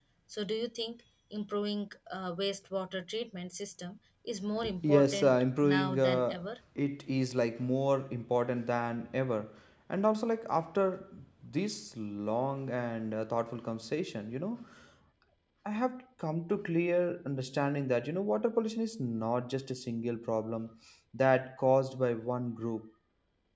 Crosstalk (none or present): present